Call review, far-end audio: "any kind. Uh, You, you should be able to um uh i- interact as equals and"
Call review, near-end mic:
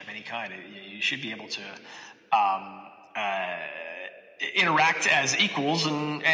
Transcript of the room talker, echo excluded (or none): none